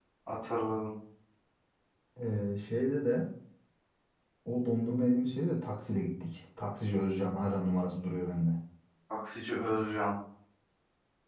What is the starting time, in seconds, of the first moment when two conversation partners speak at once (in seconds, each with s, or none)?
none